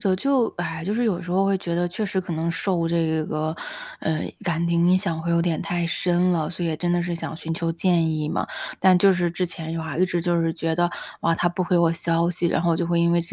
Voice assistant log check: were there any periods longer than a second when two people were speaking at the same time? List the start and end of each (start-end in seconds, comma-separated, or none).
none